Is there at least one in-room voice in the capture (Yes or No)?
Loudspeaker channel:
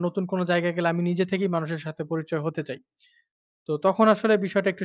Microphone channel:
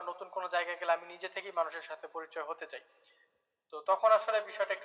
No